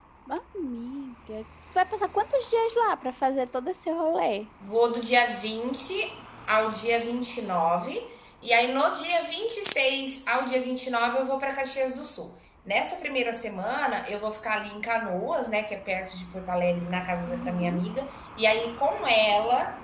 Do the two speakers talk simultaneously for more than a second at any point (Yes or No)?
No